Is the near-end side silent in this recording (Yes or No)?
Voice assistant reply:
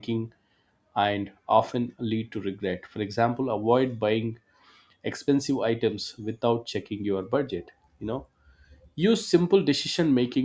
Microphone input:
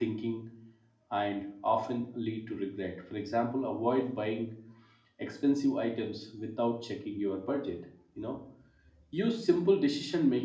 Yes